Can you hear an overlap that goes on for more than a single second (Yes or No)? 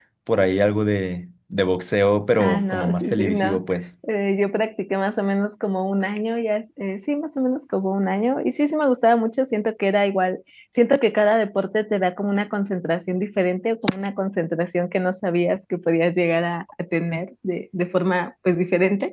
Yes